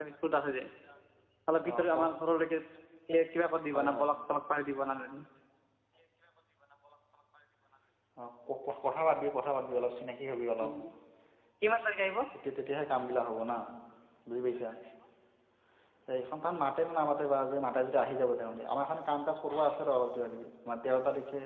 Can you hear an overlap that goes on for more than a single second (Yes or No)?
No